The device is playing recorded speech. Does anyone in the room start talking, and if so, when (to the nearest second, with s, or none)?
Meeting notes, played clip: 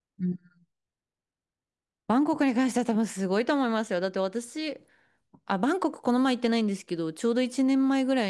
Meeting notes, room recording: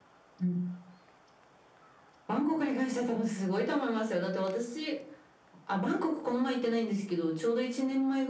none